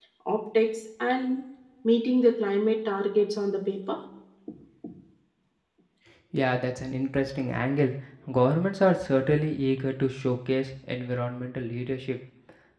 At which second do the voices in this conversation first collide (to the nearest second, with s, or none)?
none